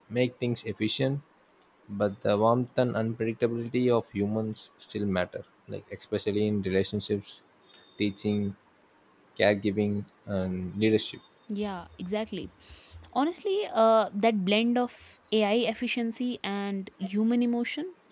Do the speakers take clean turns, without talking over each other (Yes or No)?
Yes